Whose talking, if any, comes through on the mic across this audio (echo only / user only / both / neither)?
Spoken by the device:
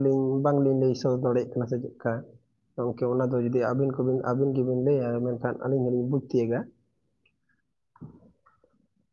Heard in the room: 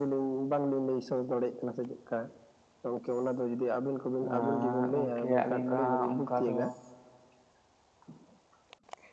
both